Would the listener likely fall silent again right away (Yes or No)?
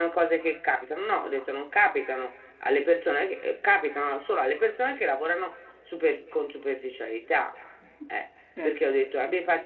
Yes